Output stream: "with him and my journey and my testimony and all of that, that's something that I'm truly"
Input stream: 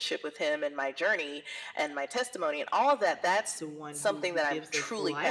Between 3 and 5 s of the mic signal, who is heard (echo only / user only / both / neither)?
both